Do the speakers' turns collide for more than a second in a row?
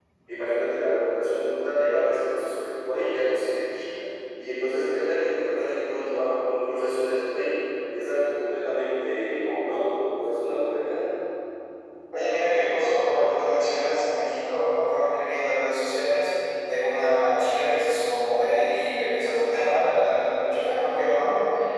No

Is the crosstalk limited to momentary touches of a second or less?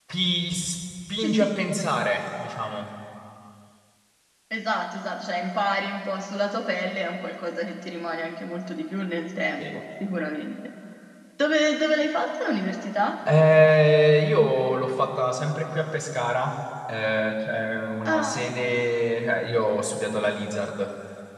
Yes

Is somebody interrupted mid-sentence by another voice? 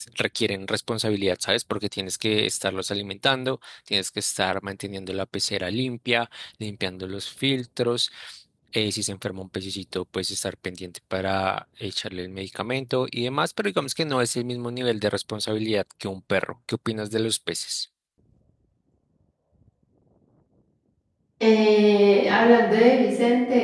No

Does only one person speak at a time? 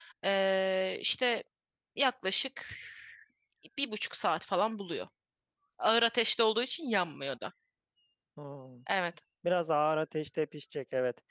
Yes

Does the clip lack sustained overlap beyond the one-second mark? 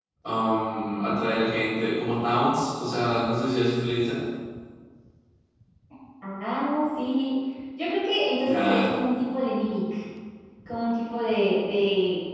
Yes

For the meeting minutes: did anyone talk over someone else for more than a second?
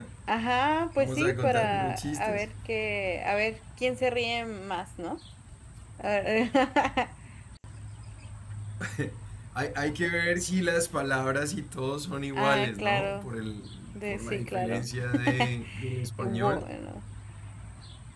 Yes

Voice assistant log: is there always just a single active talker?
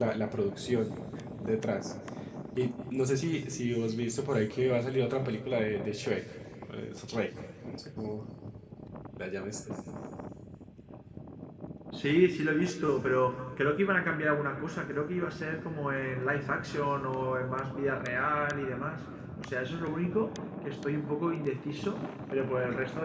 Yes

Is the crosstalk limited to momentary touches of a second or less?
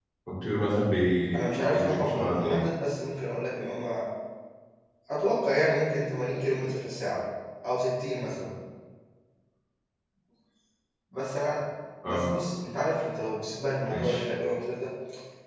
No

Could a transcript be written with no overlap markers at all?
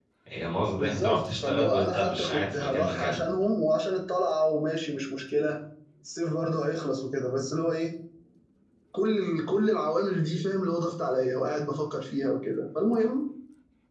No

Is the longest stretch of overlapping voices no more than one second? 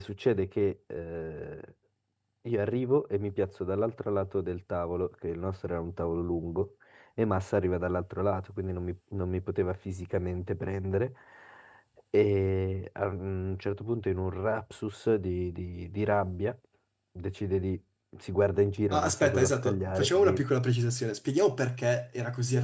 No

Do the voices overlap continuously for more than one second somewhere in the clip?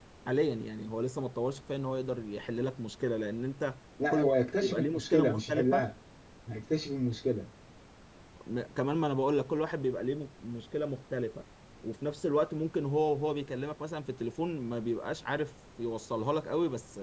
Yes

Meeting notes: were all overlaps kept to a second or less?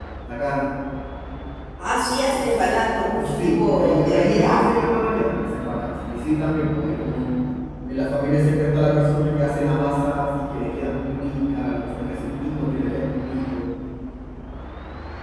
No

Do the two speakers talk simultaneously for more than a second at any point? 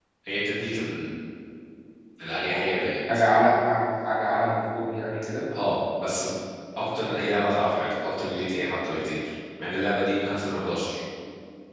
No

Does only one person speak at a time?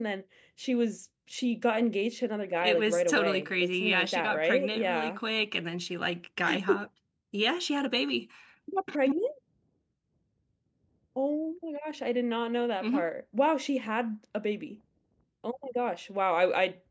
No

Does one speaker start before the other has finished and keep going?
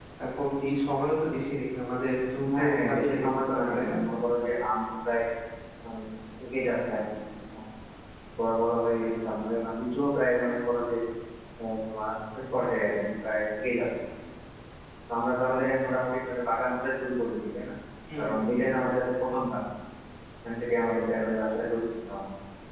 Yes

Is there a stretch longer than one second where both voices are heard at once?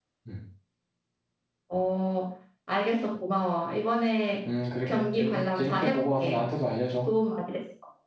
Yes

